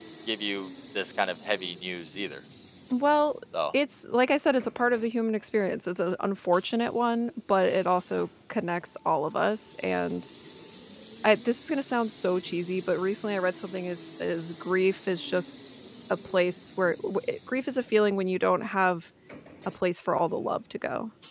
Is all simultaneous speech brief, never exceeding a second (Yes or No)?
Yes